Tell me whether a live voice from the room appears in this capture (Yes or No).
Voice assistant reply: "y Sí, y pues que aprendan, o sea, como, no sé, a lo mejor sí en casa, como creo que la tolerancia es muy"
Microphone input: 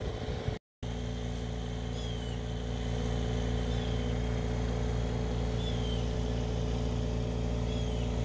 No